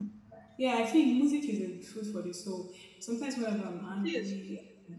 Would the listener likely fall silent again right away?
Yes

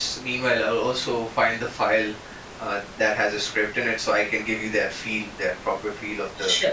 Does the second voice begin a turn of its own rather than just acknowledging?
Yes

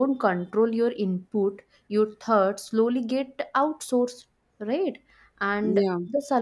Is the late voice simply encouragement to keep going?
Yes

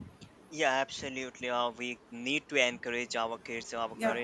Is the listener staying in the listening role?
Yes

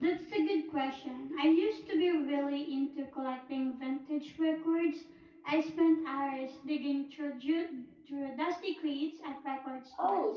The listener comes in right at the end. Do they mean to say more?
Yes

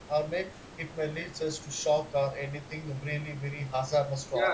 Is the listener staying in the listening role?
No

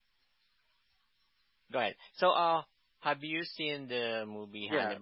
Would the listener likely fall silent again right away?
No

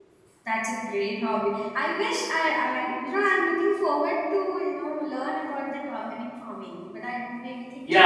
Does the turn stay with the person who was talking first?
No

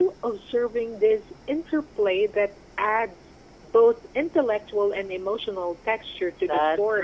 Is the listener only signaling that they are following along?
No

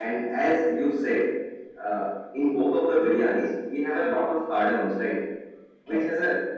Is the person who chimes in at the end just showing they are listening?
Yes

